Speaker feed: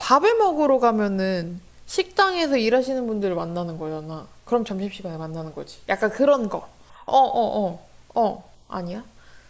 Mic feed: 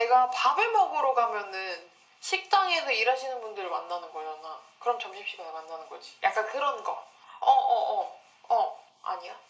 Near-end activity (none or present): none